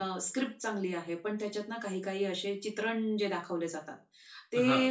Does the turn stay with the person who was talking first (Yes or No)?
Yes